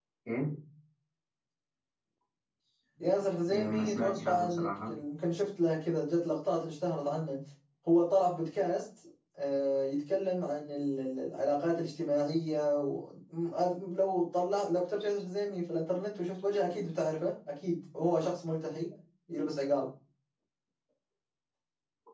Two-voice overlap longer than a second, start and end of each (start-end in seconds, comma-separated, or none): 3.5-4.9